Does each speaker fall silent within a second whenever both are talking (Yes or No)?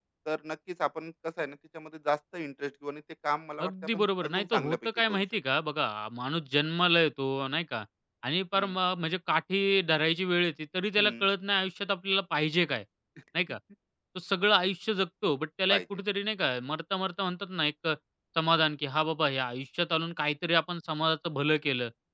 No